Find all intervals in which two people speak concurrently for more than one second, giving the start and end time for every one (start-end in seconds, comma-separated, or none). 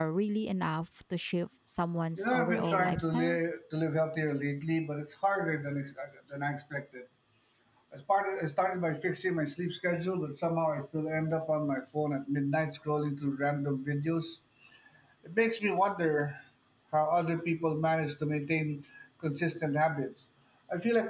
2.2-3.4